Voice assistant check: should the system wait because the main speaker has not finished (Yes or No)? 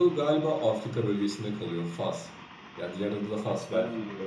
No